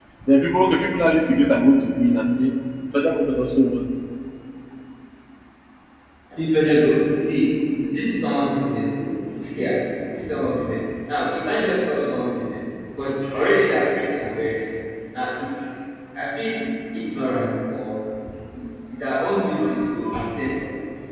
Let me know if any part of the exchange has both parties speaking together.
No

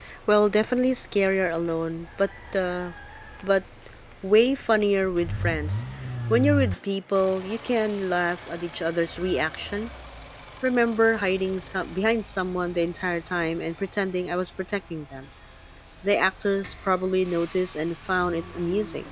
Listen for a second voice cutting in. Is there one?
No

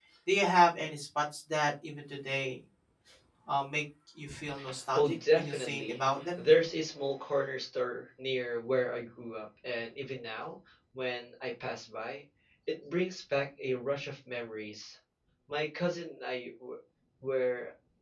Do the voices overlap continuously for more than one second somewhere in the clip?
Yes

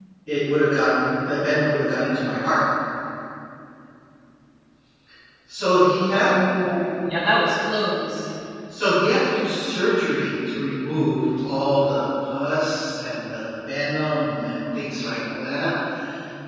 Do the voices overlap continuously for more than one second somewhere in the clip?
No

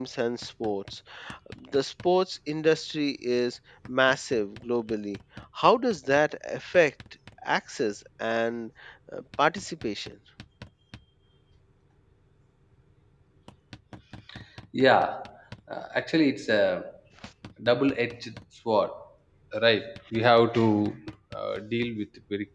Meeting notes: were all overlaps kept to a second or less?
Yes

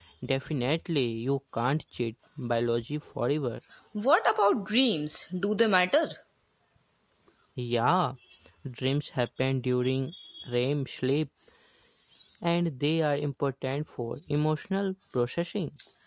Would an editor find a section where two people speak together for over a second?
No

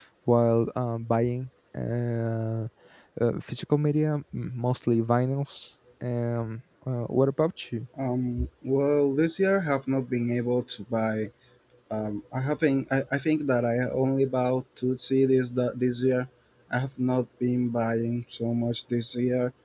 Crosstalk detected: No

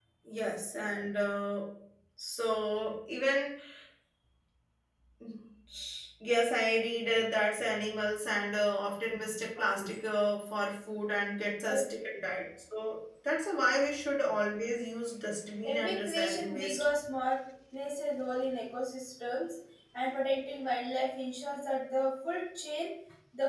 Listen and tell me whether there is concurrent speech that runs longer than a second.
Yes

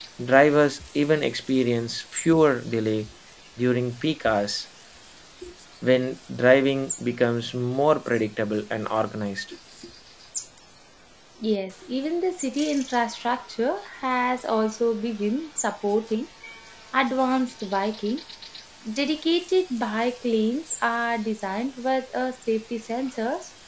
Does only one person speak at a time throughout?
Yes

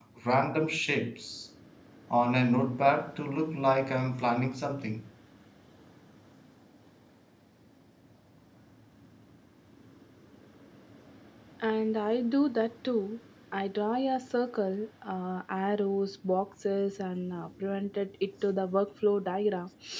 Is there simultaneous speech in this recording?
No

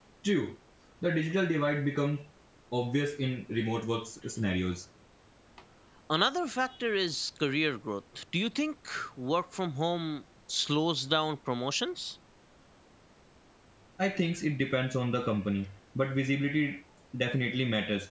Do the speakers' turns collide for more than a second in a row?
No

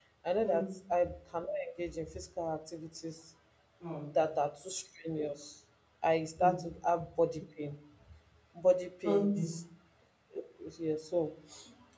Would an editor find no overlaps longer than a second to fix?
Yes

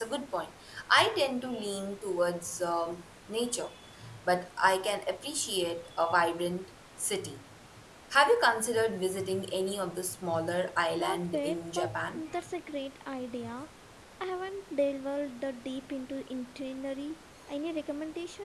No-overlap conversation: No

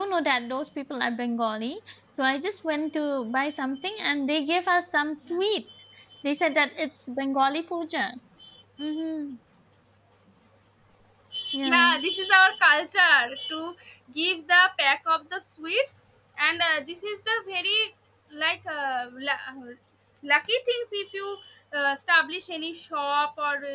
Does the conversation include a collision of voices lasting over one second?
No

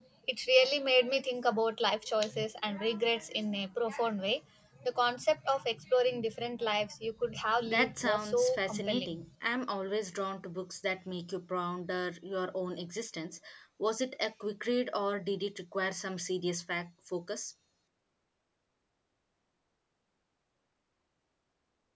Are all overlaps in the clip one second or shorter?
No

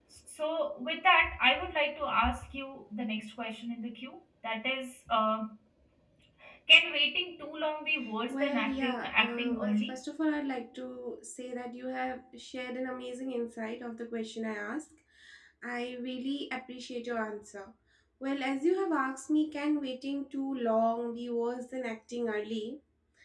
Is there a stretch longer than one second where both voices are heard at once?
Yes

